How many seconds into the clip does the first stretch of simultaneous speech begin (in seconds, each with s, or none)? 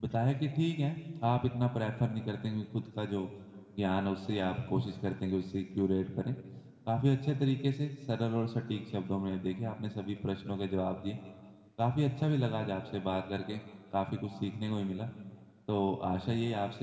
none